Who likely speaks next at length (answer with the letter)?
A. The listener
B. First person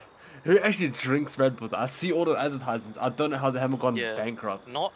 A